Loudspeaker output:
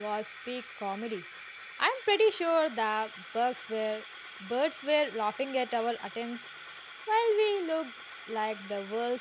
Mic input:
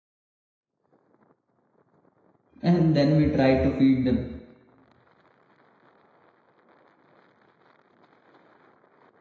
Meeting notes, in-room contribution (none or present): present